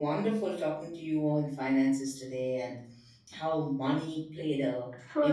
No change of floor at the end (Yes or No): Yes